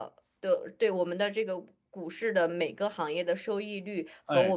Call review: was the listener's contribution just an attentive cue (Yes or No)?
Yes